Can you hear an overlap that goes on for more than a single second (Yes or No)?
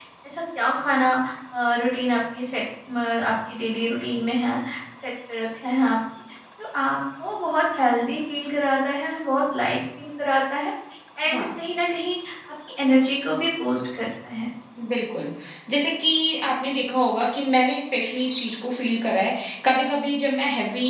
No